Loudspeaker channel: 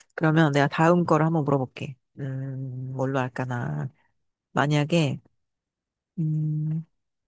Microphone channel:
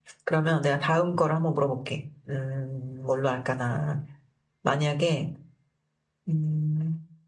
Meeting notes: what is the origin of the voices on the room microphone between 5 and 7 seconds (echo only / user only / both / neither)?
echo only